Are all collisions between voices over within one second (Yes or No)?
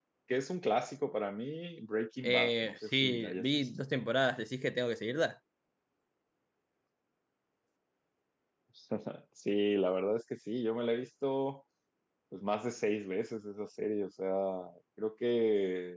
No